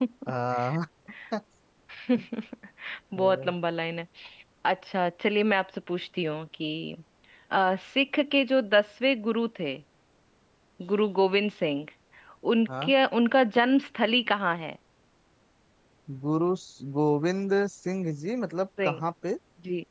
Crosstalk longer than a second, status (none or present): none